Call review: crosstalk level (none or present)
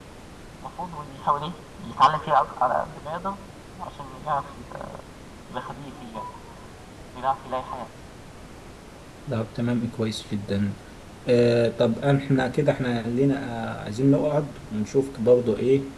none